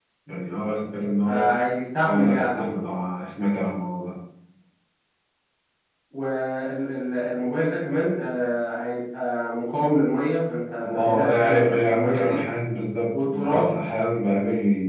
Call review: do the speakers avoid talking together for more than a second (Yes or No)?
No